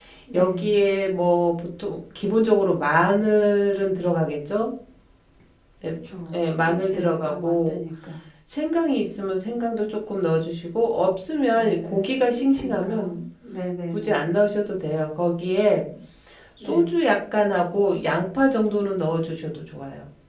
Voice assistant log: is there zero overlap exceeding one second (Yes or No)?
No